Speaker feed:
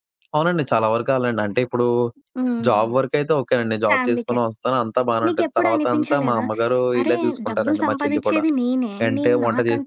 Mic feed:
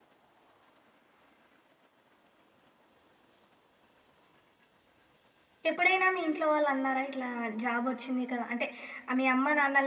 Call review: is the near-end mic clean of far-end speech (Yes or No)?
Yes